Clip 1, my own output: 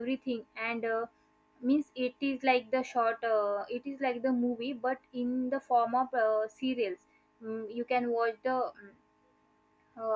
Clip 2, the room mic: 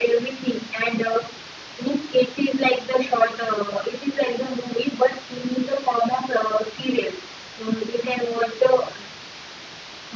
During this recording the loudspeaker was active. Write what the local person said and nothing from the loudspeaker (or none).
none